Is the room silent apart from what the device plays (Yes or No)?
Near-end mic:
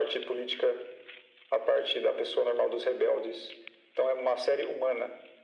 Yes